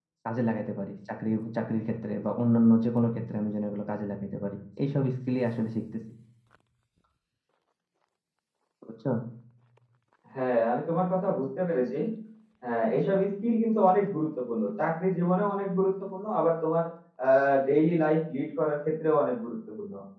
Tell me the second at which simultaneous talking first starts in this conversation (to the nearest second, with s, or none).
none